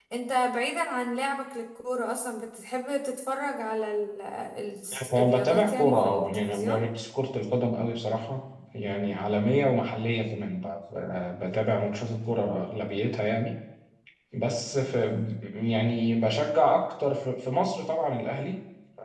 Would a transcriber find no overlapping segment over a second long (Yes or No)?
No